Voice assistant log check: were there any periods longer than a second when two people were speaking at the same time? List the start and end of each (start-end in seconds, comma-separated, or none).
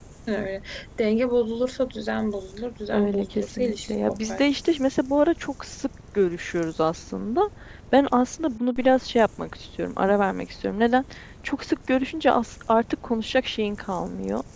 2.9-4.5